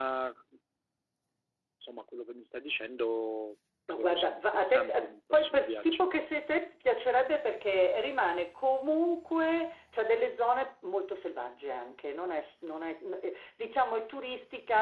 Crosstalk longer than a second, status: present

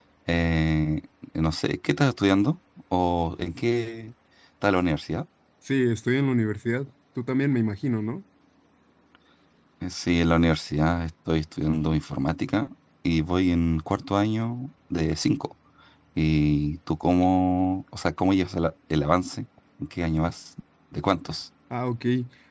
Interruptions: none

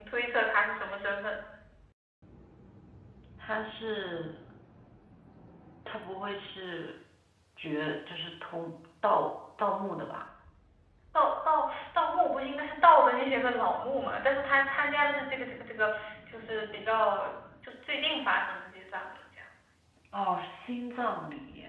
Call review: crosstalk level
none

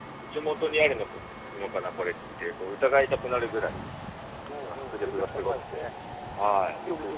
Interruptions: present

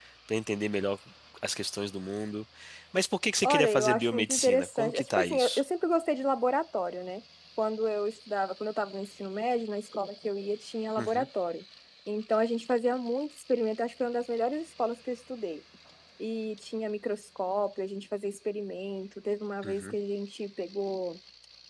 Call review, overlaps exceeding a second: present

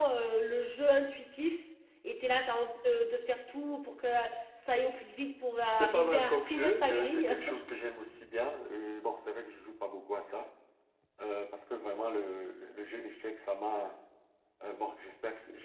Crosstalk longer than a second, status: present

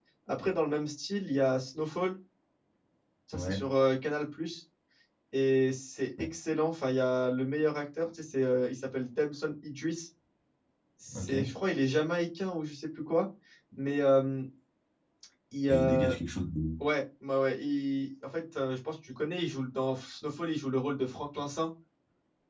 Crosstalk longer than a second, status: none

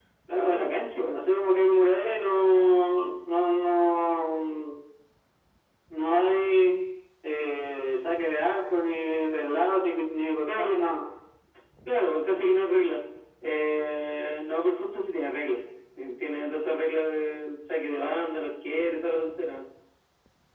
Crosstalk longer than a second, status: none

